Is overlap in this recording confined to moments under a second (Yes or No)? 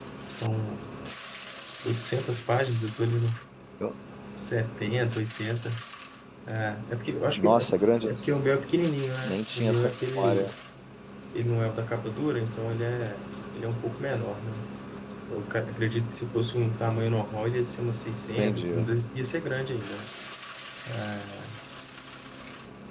No